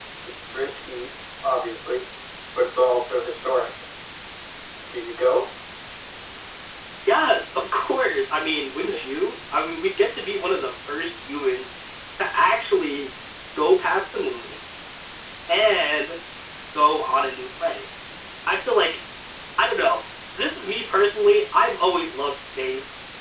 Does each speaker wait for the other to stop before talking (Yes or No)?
Yes